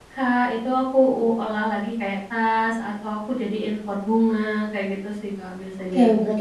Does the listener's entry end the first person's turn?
Yes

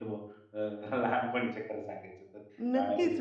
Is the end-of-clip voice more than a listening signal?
Yes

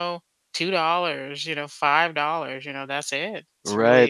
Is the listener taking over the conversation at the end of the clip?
Yes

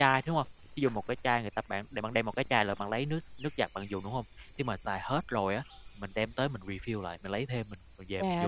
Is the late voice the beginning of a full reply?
Yes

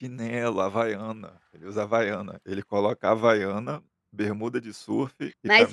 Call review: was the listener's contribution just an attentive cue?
No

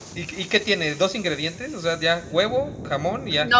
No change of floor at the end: No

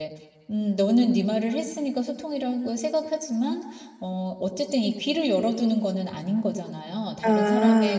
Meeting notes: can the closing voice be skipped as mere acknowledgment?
Yes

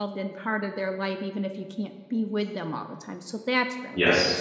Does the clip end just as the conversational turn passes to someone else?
Yes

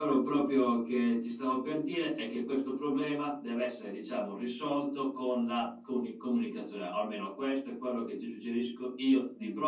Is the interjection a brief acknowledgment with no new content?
Yes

